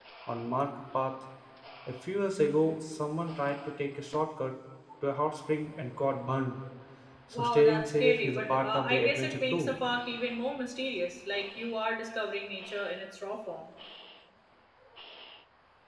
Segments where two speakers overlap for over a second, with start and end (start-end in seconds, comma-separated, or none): 7.3-9.8